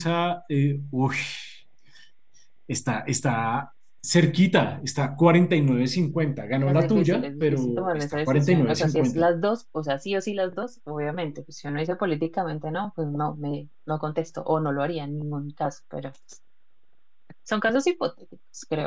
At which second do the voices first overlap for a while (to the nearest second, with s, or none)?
7 s